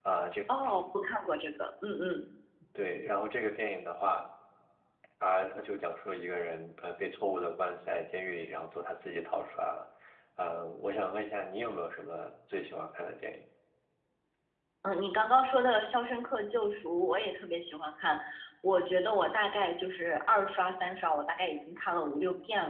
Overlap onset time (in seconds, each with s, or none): none